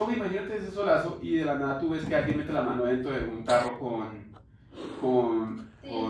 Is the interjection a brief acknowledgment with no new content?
No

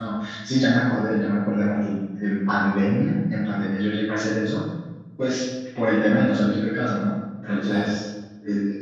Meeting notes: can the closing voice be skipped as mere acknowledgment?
Yes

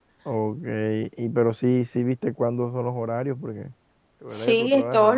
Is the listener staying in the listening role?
No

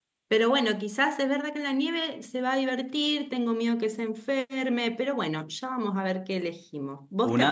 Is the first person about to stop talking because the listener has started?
No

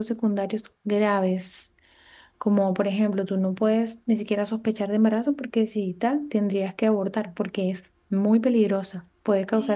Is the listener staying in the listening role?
Yes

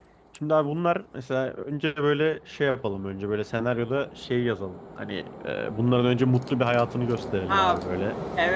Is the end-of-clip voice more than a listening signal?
Yes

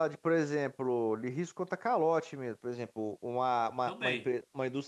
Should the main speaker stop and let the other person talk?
No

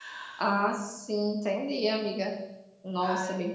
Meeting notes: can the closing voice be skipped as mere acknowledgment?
Yes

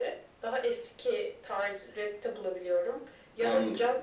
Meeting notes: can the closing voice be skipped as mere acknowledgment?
Yes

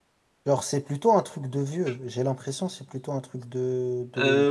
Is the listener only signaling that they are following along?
No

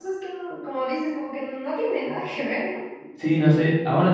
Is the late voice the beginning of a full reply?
Yes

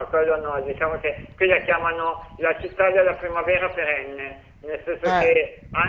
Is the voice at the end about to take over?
No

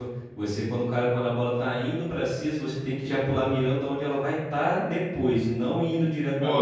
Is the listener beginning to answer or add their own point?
Yes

